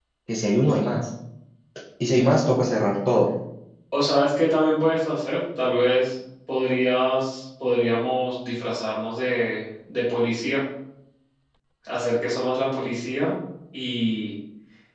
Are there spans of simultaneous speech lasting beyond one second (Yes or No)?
No